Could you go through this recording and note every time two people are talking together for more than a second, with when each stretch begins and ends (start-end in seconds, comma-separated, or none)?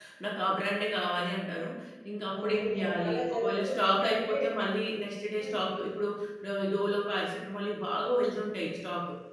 2.4-4.4